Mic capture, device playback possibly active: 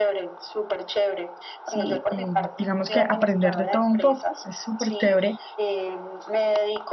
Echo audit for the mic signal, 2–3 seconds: both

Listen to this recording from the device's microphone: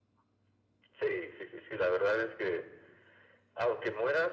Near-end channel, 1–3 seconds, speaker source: echo only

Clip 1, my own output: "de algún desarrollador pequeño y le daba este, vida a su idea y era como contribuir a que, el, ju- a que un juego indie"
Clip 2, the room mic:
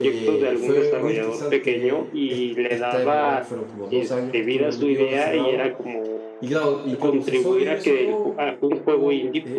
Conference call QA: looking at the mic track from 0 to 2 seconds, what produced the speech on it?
both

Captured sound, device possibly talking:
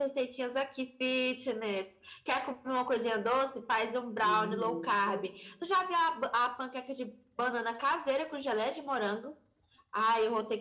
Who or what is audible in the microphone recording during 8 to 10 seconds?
echo only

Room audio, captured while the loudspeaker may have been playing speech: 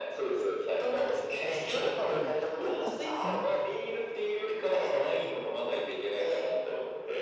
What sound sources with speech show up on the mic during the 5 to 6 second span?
echo only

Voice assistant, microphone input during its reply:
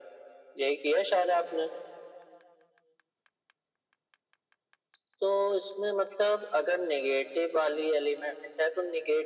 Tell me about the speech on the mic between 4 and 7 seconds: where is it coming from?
echo only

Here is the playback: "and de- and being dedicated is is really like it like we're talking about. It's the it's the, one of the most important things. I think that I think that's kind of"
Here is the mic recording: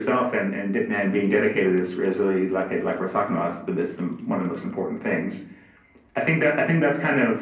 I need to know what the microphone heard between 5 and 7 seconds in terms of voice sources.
echo only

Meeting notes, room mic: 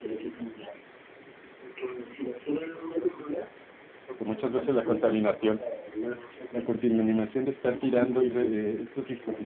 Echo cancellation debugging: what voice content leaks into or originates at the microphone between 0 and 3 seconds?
echo only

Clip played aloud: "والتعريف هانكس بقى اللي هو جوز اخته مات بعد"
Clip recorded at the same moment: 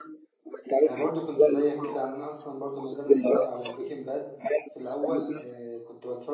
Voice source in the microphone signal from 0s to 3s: both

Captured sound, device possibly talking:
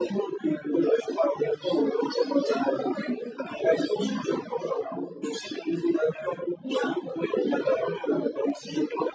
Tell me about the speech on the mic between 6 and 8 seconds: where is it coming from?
echo only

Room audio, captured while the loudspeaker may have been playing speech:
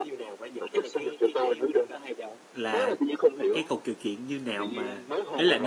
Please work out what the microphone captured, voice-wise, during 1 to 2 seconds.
echo only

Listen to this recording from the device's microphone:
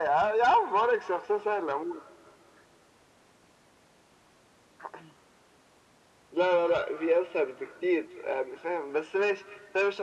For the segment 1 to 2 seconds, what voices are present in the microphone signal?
echo only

